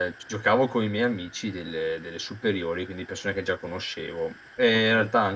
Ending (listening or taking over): listening